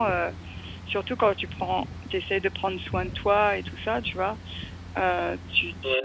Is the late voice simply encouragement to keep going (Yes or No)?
Yes